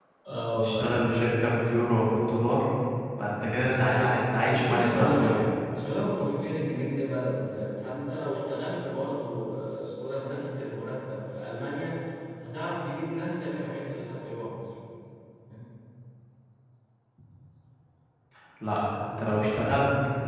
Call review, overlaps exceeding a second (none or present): present